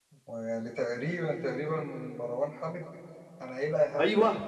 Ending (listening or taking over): taking over